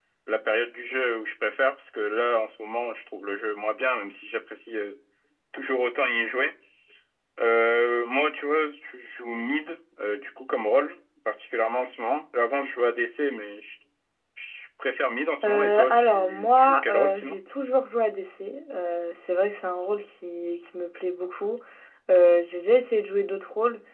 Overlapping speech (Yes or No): Yes